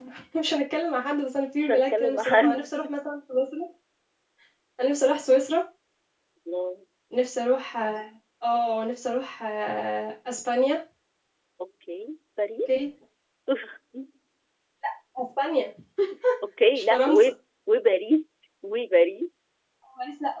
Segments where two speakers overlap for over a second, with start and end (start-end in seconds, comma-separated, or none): 1.6-2.9